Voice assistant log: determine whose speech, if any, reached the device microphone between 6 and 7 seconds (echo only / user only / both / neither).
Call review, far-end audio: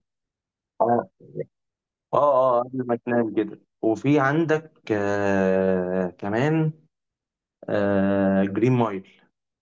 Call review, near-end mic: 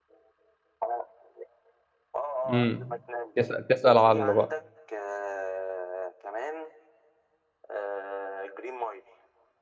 echo only